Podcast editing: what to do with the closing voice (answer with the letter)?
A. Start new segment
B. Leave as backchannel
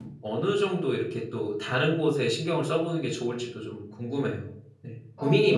A